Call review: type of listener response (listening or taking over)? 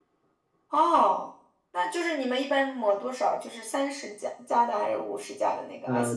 taking over